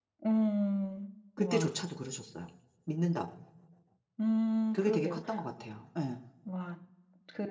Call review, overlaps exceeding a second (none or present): none